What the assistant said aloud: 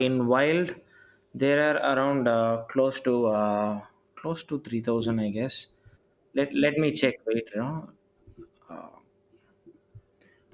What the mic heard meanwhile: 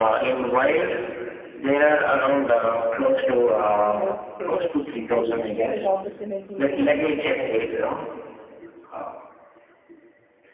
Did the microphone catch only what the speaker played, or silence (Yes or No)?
No